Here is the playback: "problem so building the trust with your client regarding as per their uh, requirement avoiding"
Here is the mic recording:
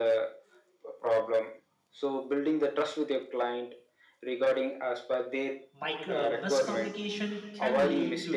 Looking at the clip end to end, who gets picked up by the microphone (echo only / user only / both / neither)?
both